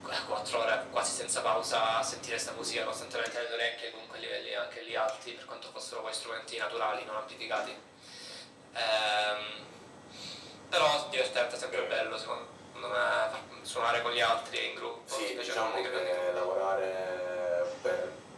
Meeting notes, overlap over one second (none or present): present